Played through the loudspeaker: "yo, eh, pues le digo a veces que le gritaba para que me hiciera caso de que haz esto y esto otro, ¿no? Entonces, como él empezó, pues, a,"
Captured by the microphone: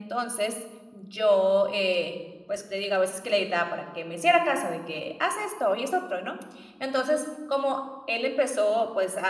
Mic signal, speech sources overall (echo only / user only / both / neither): echo only